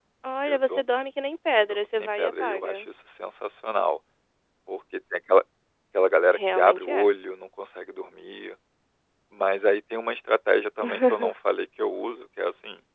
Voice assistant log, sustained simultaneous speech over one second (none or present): present